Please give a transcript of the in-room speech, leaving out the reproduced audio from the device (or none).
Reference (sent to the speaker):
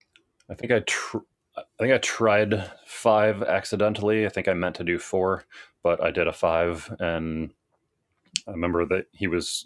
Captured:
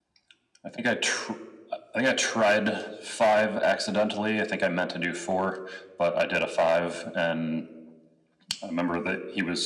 none